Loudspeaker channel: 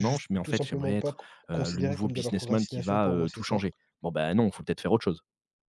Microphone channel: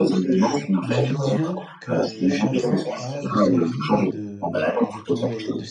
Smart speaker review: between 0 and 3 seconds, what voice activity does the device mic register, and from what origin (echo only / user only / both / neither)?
both